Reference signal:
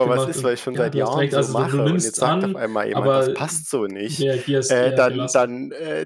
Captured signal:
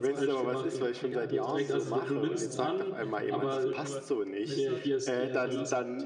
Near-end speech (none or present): present